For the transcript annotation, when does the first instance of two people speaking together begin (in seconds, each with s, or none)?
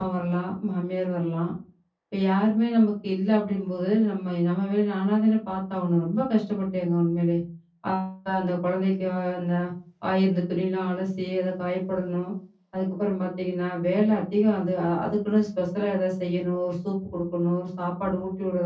none